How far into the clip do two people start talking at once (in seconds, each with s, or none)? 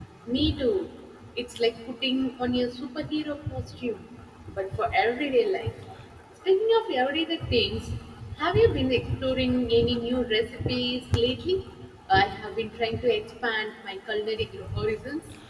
none